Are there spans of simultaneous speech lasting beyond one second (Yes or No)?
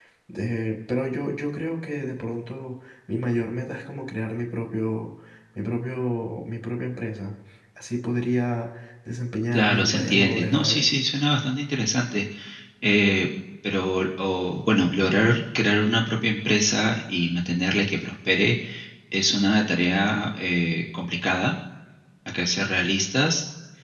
Yes